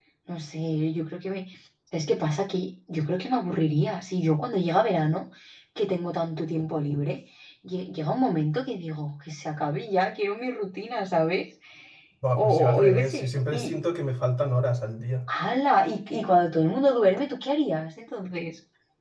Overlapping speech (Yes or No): Yes